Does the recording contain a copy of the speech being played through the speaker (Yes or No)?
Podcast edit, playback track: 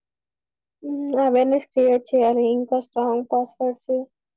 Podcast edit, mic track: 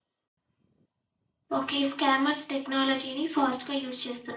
No